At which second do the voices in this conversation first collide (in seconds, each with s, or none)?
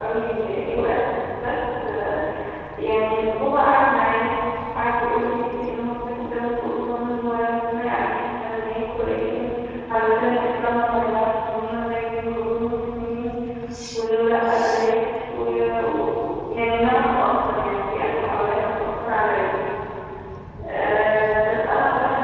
none